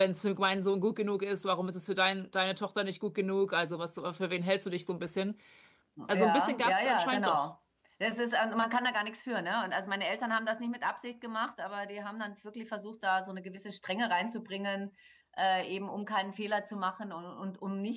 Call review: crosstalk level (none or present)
present